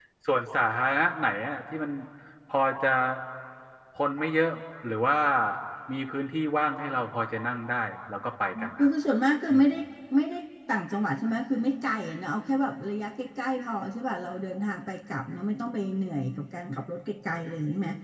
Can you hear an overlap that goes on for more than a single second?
No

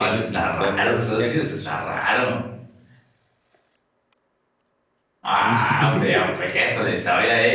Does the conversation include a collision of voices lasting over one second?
Yes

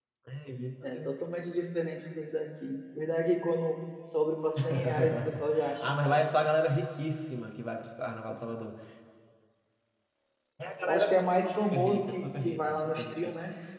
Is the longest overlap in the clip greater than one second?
Yes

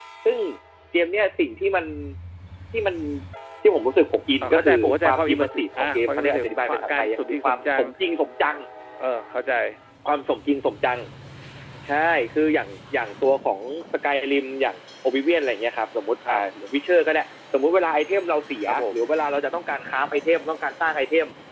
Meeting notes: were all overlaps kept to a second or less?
No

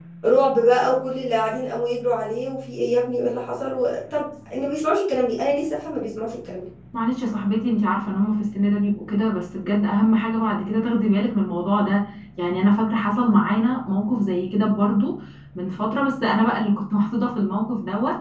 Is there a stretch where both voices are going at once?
No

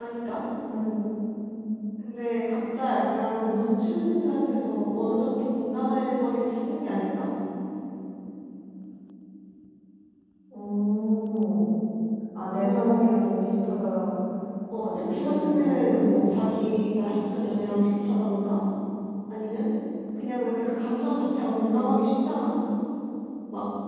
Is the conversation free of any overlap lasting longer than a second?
No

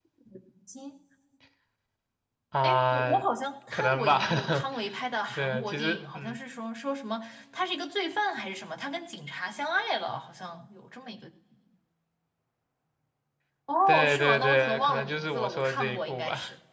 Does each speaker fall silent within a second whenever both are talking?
No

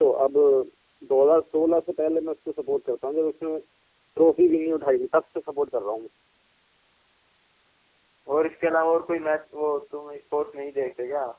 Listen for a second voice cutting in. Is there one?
No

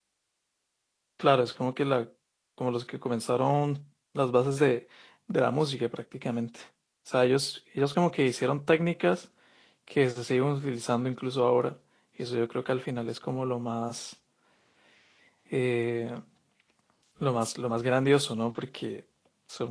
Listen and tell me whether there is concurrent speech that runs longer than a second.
No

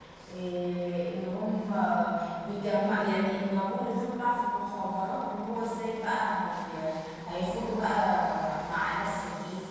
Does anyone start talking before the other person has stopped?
No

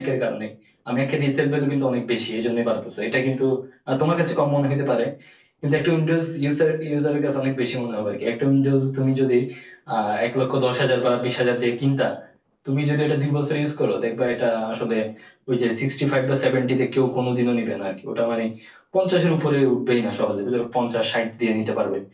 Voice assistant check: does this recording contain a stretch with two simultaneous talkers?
No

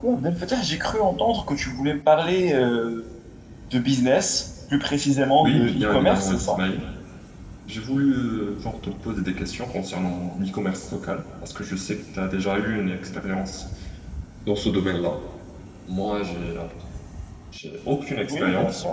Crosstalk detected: Yes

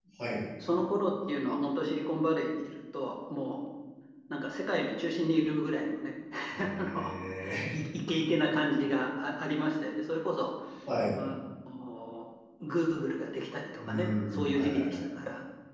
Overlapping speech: Yes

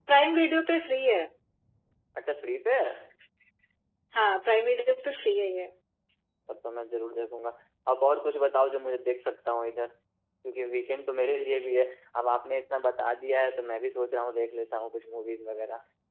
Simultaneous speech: No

